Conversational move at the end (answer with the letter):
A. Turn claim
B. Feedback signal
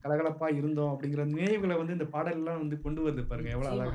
A